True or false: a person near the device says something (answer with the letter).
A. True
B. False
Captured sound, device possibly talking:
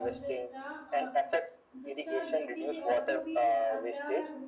A